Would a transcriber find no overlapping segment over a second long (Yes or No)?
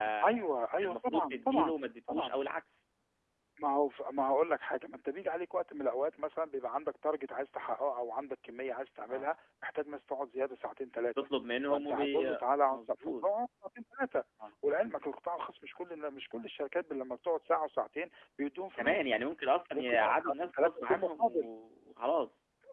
No